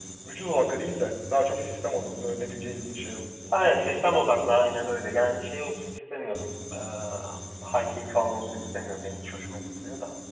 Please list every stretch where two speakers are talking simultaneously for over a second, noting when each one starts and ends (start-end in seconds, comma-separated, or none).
none